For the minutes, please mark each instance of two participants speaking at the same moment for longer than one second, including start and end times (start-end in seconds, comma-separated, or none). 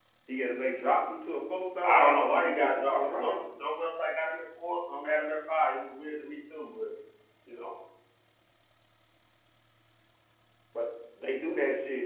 1.8-3.3